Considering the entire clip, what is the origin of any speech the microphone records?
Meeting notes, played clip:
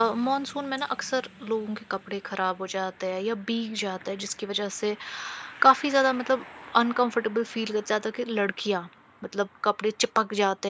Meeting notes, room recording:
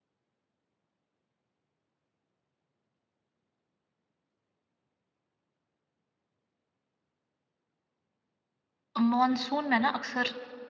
user only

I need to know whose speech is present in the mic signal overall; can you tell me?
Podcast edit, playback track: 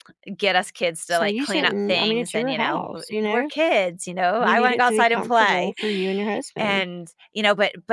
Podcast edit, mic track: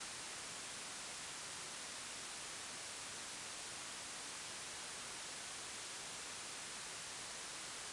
neither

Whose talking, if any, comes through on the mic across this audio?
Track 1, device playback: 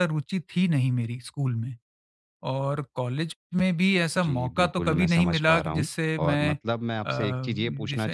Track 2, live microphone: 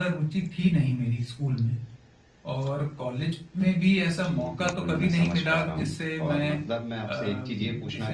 echo only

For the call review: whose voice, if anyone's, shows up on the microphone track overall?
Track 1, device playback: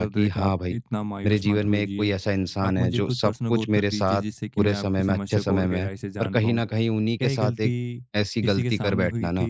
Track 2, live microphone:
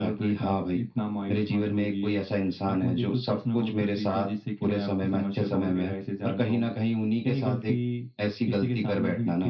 echo only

